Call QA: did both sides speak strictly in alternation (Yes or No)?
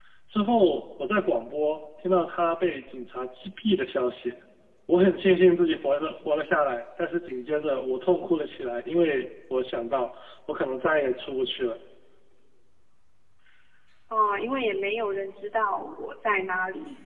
Yes